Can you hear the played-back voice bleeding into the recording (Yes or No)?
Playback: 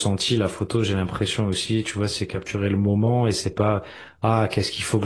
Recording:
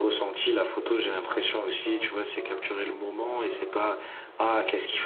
Yes